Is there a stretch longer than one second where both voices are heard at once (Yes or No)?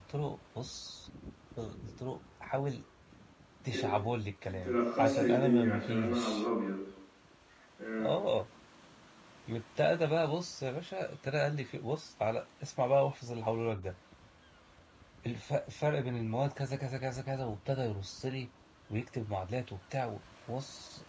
Yes